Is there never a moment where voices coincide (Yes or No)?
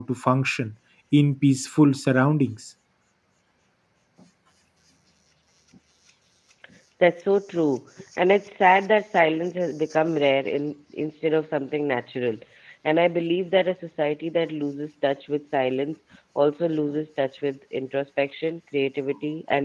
Yes